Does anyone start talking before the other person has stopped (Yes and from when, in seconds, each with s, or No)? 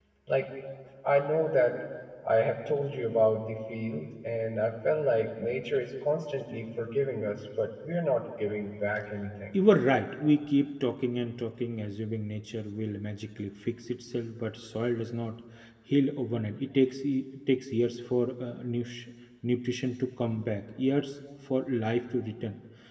No